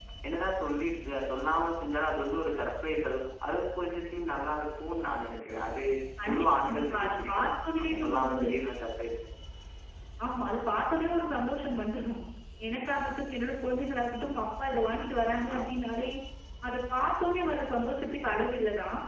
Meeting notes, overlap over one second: present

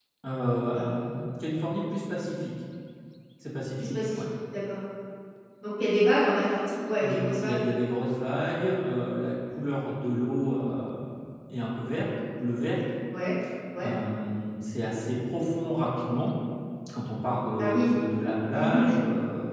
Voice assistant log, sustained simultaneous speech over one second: none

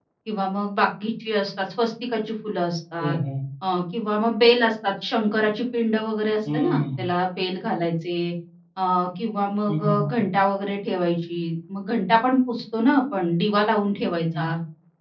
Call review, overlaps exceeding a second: none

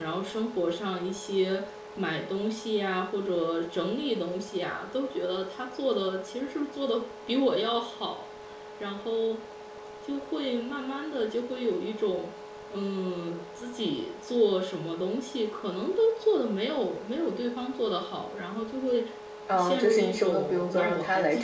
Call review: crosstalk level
present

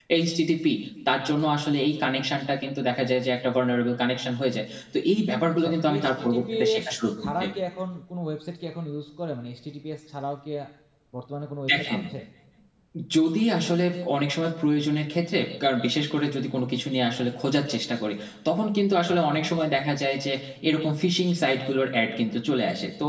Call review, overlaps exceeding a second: present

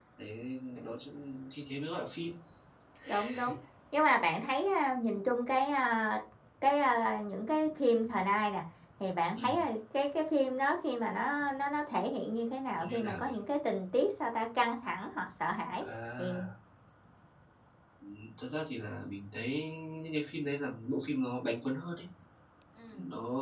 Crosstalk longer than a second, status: none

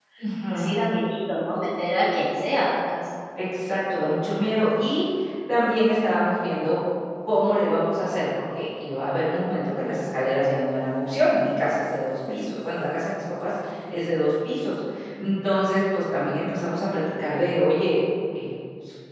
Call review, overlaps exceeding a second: none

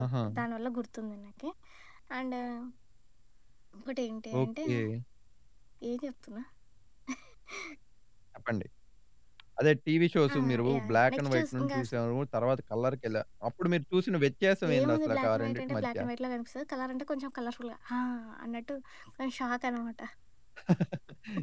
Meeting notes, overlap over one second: present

